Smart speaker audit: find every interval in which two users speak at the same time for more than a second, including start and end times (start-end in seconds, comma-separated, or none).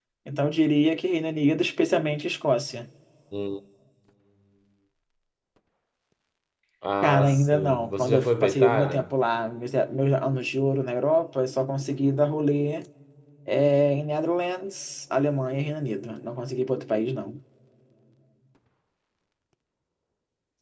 7.0-9.1